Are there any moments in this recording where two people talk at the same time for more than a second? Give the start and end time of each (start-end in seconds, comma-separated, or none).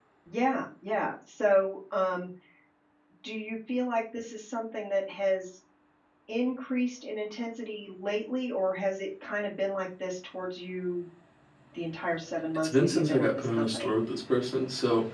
12.6-13.9